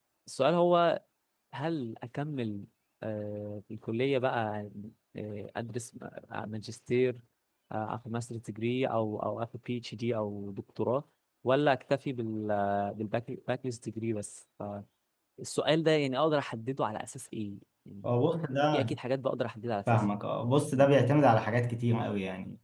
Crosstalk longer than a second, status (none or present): none